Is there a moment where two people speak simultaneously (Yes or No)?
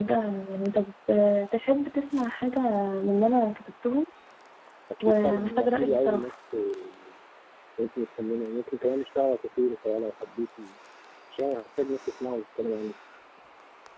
Yes